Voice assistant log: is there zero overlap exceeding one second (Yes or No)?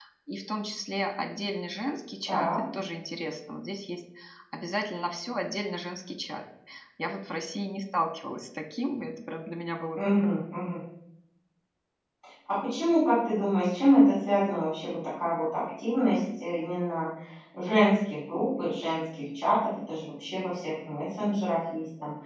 Yes